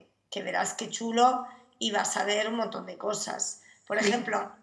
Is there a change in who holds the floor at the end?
No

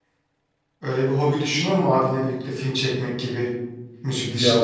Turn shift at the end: Yes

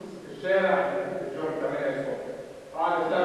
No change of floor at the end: Yes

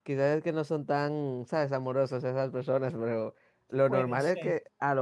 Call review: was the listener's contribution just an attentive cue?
Yes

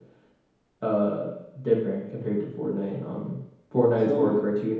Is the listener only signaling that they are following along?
Yes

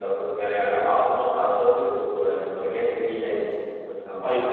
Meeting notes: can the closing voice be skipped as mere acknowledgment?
No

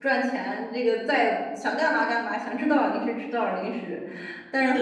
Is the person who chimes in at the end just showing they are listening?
Yes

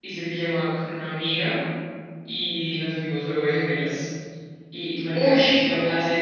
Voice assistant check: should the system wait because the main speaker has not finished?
Yes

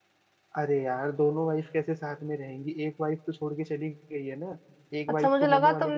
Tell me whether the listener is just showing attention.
No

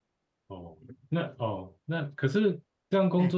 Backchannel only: Yes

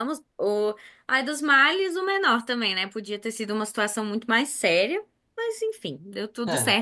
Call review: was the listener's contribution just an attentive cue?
Yes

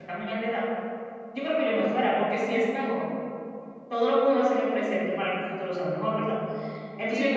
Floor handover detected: Yes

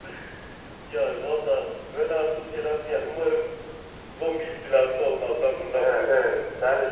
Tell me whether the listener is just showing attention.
No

